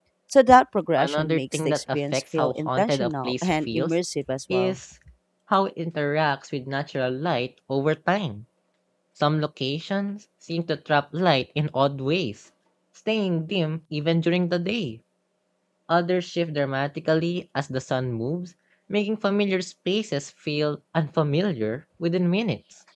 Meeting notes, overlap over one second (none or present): present